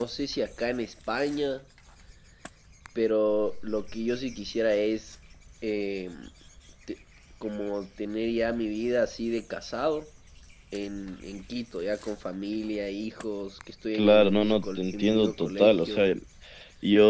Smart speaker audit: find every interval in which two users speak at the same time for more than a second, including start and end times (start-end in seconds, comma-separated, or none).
13.9-16.1